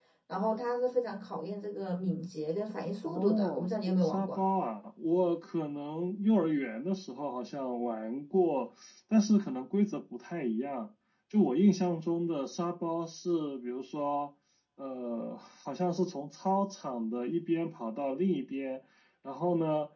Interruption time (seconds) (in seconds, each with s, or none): 3.0 s